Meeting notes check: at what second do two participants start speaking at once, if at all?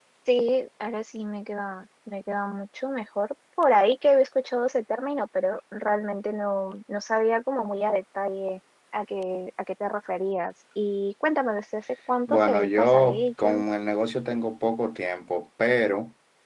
12.3 s

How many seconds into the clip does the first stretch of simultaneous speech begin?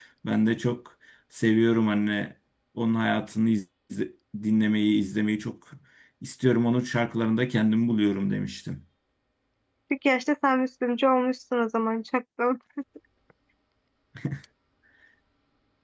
none

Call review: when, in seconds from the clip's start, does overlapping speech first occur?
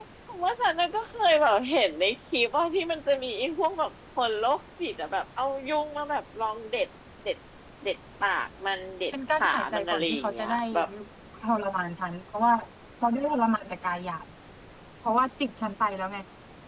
9.1 s

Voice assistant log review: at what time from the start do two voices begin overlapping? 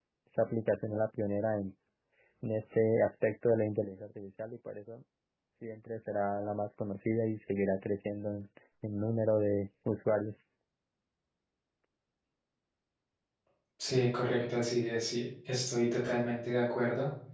none

